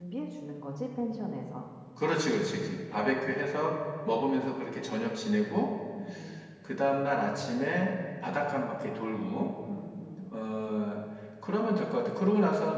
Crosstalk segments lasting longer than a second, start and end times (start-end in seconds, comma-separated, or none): none